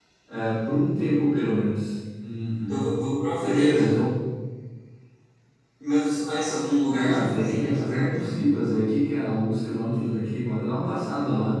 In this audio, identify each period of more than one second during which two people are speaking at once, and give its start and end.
6.9-8.2

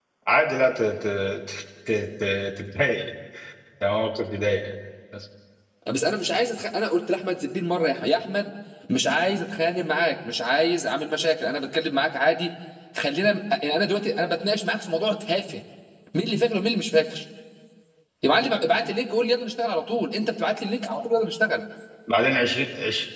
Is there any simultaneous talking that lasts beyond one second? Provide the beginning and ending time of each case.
none

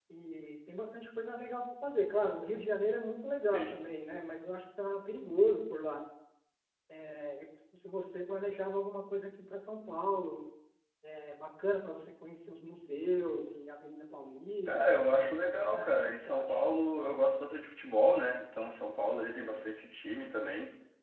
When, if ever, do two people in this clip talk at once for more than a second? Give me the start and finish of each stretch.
14.7-16.5

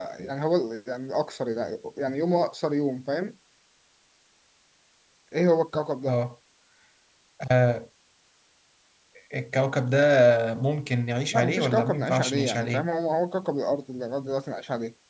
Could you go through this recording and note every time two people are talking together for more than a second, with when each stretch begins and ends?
11.3-12.9

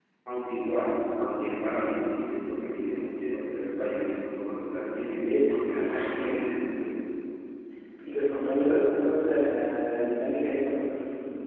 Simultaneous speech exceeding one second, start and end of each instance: 4.9-6.5

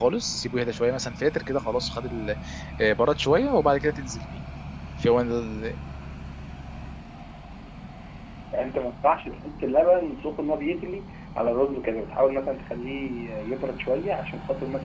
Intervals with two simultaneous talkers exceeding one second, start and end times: none

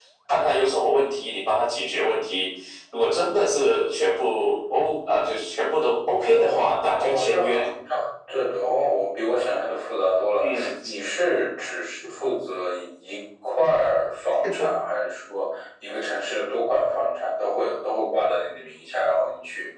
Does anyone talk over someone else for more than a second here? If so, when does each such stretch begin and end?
6.1-7.7

